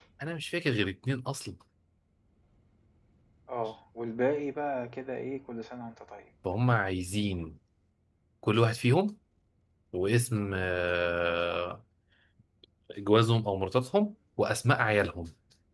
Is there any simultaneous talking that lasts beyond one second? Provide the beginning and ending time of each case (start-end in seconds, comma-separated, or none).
none